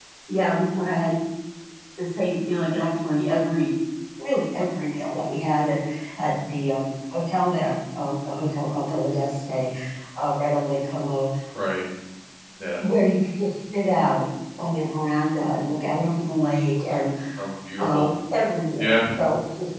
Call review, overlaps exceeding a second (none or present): none